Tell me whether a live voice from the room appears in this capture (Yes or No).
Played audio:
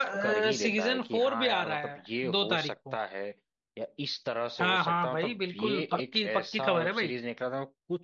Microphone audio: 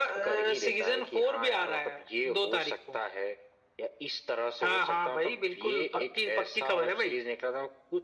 No